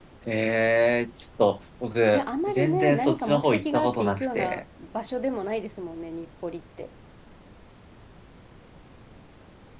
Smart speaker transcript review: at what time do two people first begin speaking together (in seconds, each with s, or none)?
2.1 s